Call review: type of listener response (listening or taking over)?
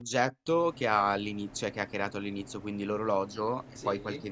listening